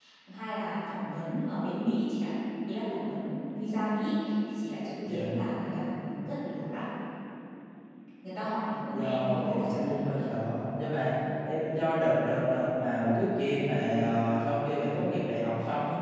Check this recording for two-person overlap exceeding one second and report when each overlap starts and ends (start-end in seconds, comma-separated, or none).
8.9-10.2